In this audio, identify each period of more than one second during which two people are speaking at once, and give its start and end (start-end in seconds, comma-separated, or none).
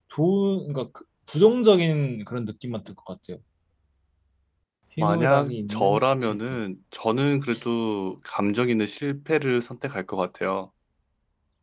5.0-6.4